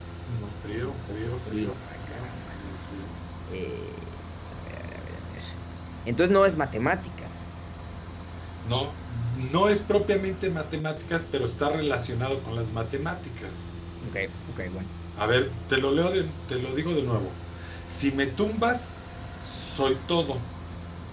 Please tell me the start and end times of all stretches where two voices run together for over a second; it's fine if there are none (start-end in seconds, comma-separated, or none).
0.8-2.3